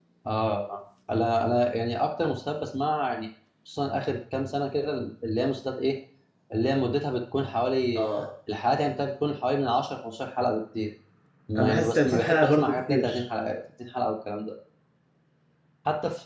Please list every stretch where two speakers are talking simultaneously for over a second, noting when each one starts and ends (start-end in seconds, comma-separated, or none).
11.6-13.2